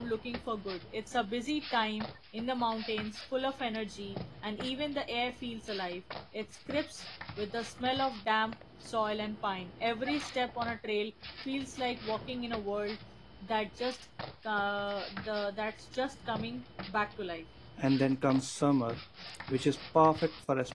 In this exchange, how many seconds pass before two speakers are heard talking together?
none

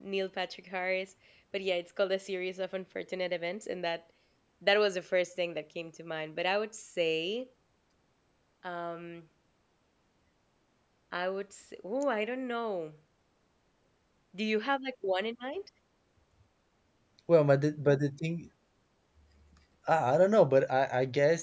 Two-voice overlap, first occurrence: none

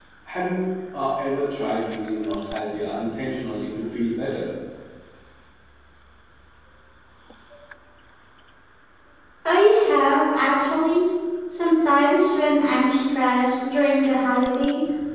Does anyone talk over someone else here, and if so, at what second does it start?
none

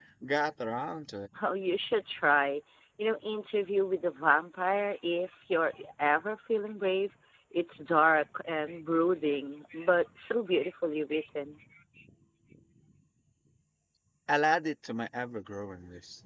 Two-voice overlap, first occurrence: none

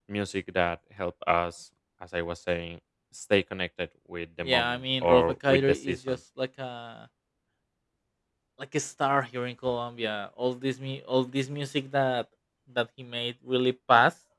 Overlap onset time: 4.4 s

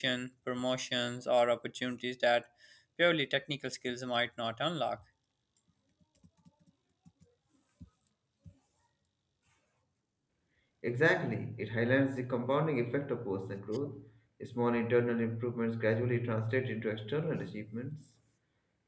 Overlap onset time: none

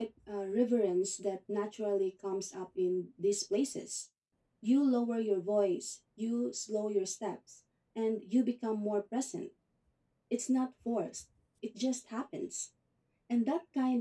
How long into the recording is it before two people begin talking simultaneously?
none

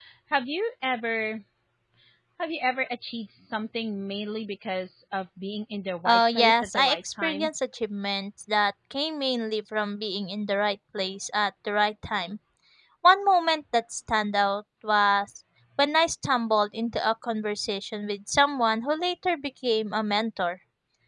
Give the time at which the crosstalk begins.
6.0 s

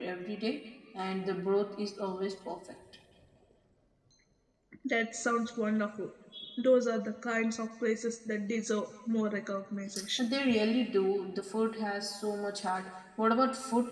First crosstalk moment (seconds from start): none

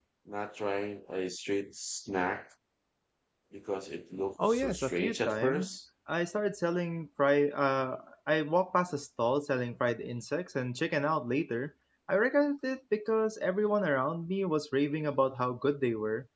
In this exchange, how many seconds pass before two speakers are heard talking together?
4.4 s

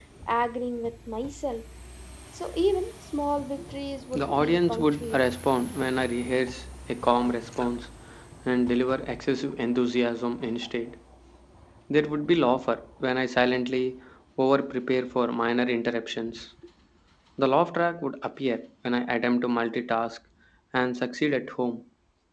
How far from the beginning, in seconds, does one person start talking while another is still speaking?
4.1 s

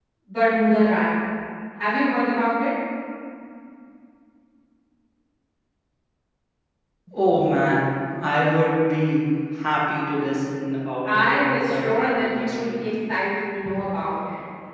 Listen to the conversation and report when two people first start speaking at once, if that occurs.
11.0 s

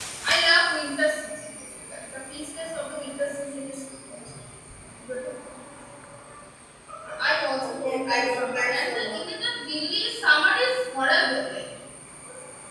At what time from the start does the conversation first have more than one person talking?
7.6 s

